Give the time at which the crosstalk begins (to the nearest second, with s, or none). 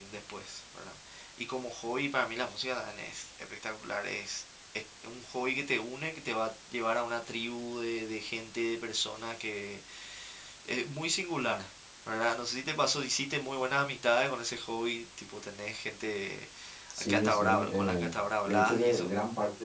17 s